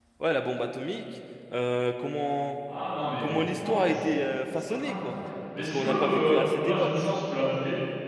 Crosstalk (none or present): present